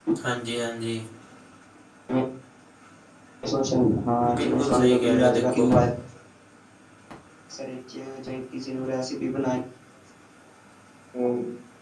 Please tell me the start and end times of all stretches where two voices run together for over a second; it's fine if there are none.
4.4-5.8

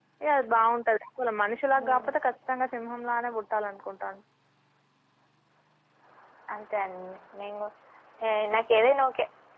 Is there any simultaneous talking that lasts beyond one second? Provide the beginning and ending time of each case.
none

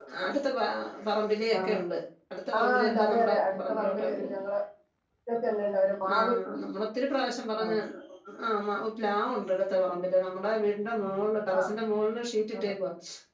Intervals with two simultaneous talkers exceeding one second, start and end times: 2.6-4.3

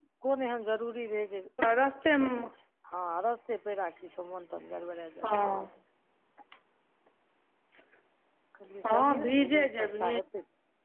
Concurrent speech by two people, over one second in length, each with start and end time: 8.8-10.2

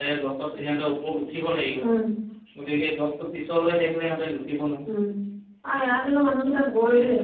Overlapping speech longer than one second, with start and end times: none

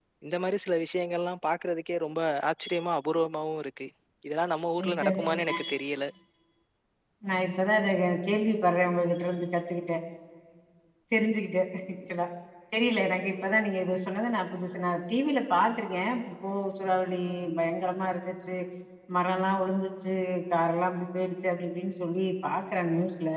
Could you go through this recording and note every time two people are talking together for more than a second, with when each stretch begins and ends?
none

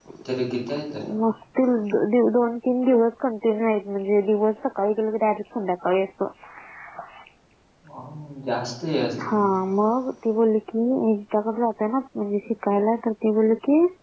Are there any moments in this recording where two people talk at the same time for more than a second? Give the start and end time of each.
none

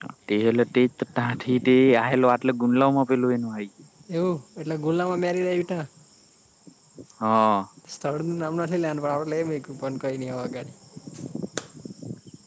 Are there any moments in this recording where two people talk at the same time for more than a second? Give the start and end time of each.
none

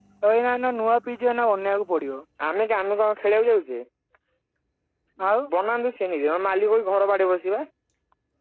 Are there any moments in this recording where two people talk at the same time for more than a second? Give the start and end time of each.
none

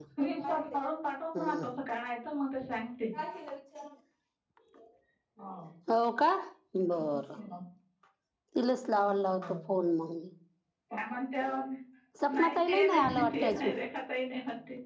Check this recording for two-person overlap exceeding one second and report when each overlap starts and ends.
12.3-13.8

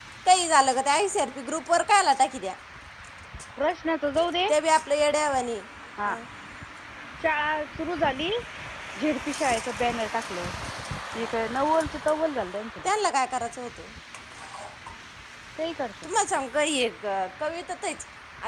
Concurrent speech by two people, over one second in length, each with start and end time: none

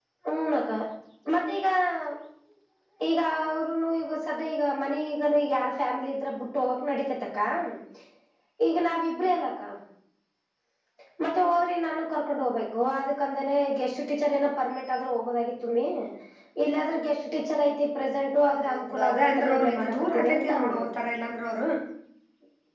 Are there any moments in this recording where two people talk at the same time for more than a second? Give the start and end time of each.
18.5-20.8

